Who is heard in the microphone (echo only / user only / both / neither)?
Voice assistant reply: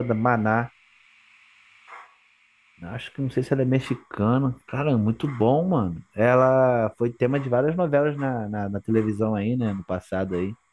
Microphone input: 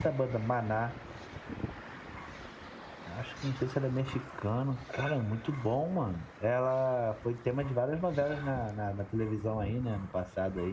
echo only